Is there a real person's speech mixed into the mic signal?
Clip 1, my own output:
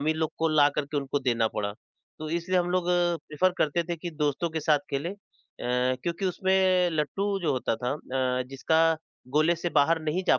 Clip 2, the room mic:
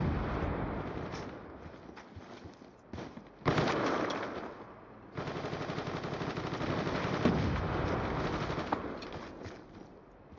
No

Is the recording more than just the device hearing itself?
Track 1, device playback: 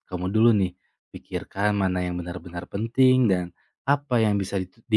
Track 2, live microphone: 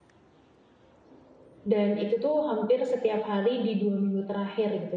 Yes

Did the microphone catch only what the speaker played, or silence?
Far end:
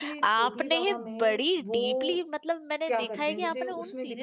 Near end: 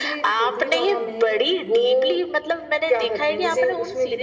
Yes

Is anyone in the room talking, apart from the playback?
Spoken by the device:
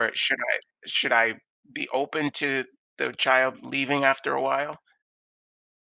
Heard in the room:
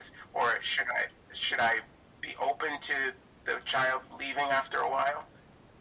No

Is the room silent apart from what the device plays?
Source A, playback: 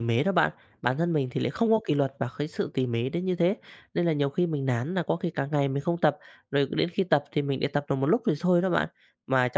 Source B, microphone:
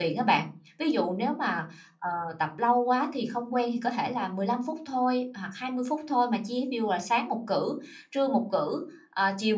No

